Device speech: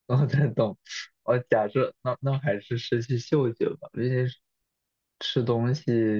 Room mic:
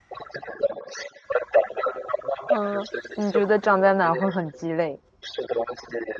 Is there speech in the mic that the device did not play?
Yes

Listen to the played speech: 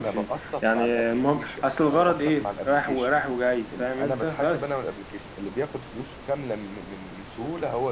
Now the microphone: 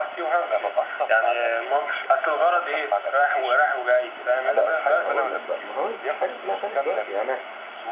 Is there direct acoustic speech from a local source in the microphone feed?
Yes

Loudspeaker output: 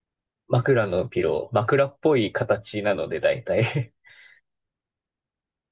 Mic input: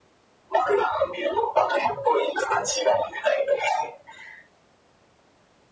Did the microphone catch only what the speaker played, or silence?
Yes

